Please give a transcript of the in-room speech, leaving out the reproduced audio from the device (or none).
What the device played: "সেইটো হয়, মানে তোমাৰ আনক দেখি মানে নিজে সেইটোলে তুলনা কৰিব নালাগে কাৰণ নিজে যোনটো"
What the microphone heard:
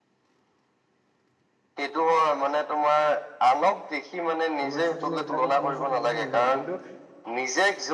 সমস্যা তুমি এইবিলাকৰ সমস্যাৰ সন্মুখীন নোহোৱা কিন্তু।